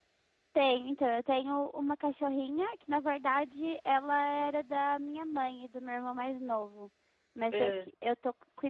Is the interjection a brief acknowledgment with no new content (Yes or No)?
Yes